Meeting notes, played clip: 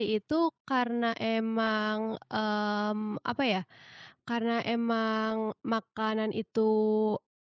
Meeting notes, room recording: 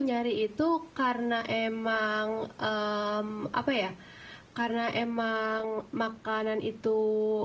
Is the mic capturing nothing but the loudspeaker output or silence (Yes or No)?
Yes